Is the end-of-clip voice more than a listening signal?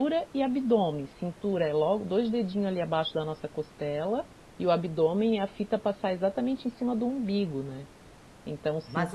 Yes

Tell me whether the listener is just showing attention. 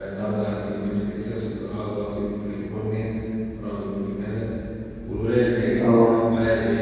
Yes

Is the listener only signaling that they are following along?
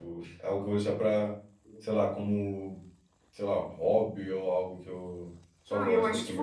No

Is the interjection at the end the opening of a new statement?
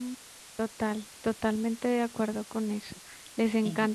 No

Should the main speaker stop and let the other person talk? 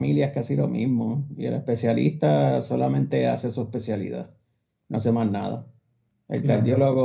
No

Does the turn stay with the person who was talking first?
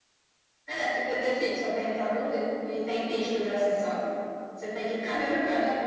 Yes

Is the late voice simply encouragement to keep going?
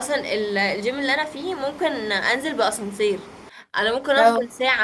Yes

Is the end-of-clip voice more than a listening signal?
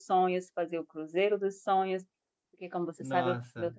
No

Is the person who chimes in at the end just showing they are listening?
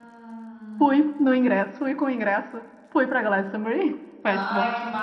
No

